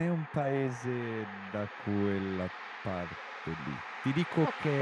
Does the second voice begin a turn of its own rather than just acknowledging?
No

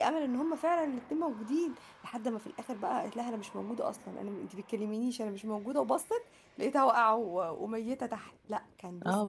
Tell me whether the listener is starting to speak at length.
Yes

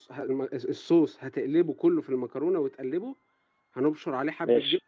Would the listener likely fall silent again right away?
Yes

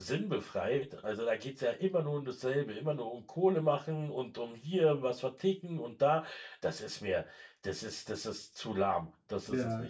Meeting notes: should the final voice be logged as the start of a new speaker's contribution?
Yes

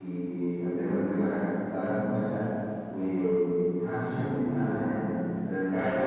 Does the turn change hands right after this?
No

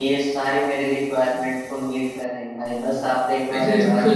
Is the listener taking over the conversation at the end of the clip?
Yes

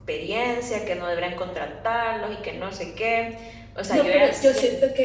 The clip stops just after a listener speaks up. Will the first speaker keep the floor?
No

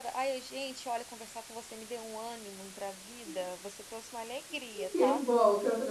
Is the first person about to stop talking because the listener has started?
Yes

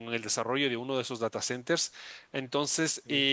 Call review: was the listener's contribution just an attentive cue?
Yes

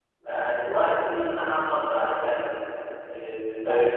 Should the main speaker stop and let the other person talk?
Yes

